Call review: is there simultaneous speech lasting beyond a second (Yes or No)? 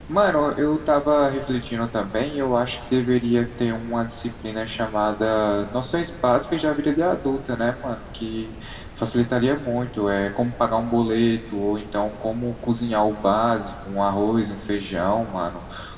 No